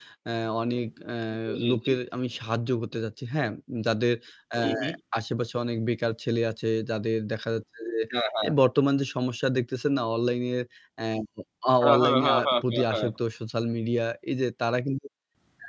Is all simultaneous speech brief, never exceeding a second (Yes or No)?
No